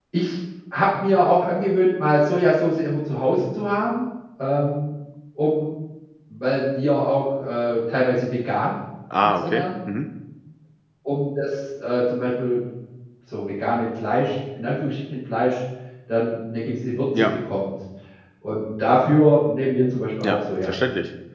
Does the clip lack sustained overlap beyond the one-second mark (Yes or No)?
Yes